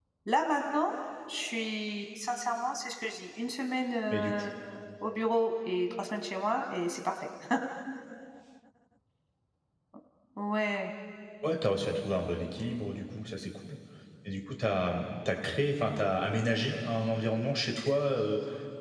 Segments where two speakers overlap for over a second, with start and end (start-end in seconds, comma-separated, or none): none